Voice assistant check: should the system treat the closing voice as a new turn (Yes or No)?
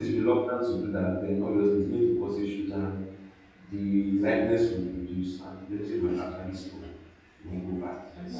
Yes